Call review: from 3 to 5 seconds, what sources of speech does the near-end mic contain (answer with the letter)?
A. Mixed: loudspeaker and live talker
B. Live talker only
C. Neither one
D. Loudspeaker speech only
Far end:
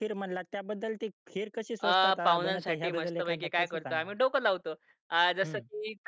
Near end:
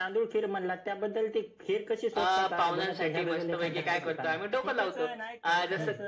A